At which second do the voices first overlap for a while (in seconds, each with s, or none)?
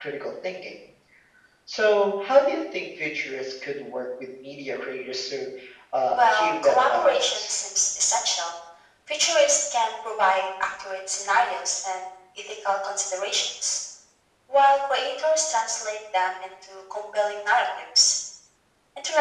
6.2 s